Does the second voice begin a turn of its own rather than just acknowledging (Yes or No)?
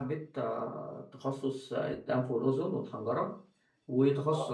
No